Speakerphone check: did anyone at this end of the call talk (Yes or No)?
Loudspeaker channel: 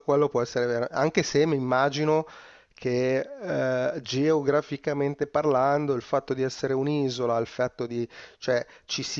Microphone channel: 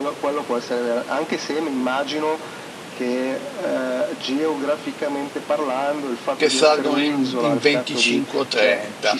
Yes